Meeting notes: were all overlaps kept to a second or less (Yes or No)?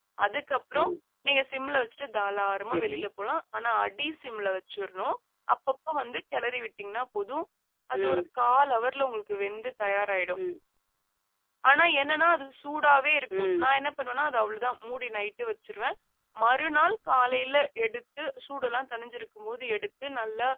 Yes